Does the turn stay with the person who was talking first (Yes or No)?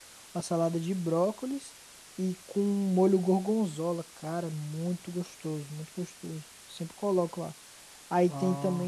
Yes